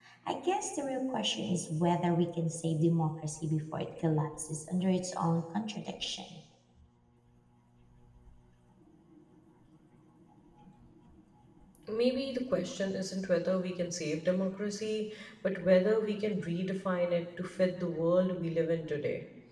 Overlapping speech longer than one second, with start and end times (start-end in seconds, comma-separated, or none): none